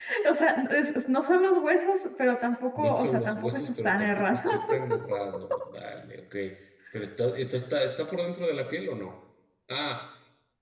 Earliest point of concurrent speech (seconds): 2.8 s

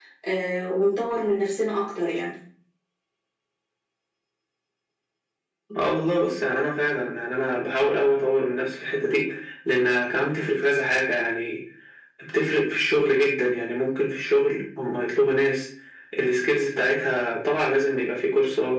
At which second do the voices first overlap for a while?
none

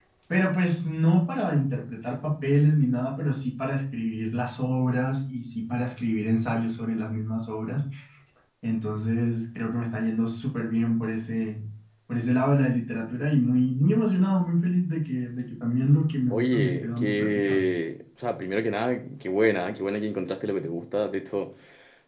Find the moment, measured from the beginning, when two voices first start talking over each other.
16.3 s

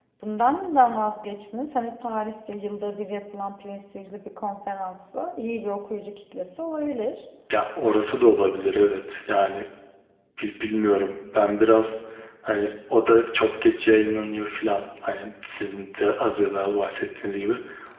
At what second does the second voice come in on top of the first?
none

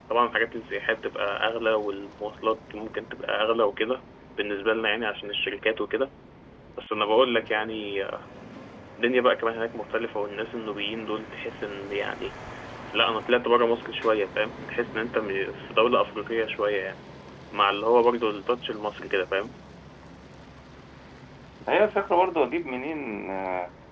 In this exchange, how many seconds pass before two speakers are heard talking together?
none

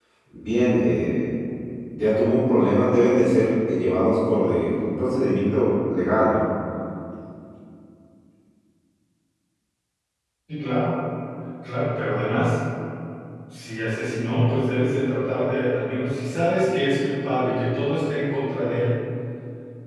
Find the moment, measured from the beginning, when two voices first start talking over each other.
none

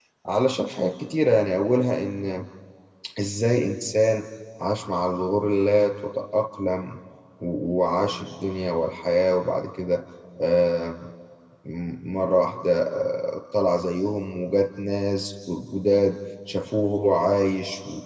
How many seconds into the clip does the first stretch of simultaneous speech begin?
none

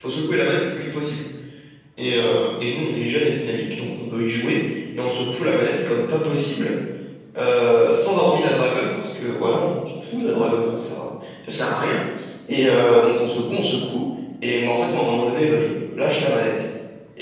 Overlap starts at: none

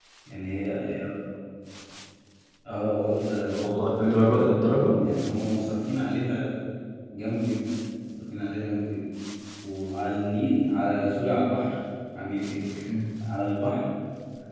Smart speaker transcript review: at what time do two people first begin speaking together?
3.6 s

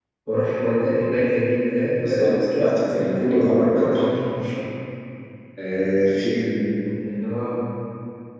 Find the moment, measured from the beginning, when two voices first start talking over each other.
2.0 s

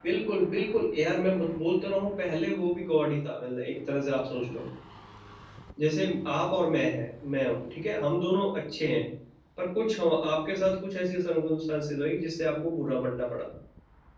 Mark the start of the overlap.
none

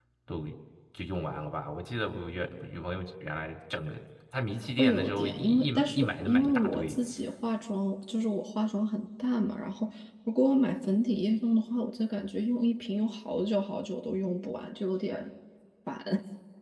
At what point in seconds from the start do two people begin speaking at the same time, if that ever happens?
4.6 s

